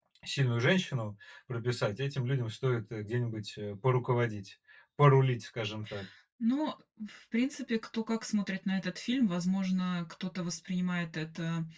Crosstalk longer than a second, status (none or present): none